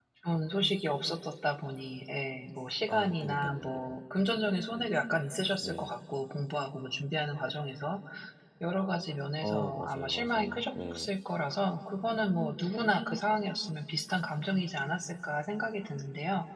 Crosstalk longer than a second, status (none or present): present